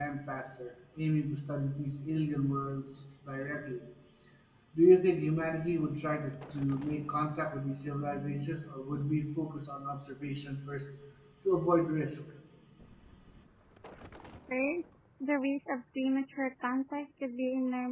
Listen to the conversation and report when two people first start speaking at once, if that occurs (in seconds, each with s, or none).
none